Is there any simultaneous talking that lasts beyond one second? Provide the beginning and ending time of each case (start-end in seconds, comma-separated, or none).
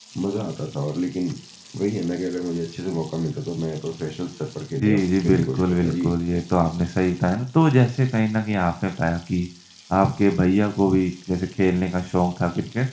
4.8-6.1